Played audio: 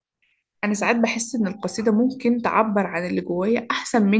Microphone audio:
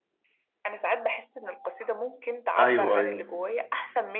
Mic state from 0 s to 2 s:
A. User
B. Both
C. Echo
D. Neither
C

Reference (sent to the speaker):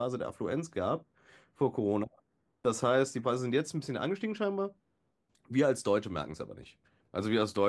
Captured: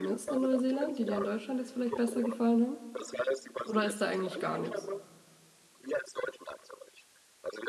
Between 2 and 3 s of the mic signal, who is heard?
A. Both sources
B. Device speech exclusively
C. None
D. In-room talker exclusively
A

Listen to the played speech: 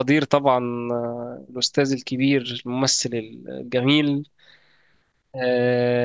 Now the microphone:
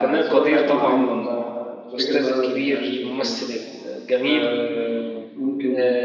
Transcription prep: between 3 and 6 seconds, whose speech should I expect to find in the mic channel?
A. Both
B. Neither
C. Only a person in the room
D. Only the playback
A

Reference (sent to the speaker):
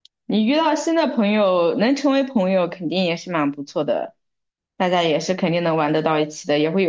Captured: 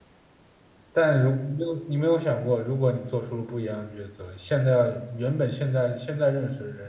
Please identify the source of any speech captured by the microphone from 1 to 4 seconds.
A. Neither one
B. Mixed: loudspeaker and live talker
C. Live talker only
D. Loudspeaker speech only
C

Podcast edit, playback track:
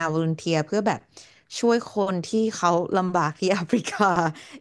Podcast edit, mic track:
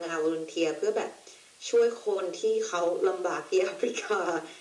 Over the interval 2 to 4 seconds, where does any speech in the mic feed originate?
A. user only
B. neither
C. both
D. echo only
D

